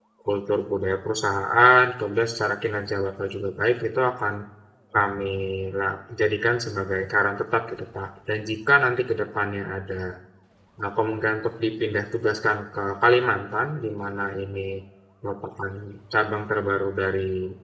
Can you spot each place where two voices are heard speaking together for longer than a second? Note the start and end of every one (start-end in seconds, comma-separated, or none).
none